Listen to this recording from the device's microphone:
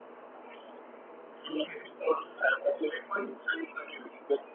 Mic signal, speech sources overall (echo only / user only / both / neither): echo only